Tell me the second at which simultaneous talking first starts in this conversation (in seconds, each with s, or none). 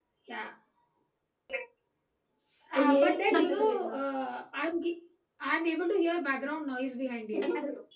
2.8 s